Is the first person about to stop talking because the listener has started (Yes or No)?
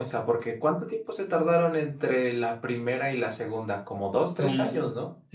Yes